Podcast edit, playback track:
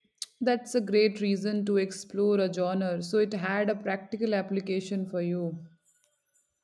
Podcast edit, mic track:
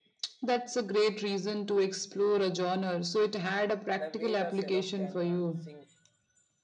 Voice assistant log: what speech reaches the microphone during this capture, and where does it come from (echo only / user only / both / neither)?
both